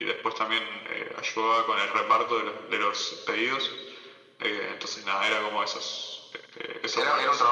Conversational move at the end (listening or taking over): taking over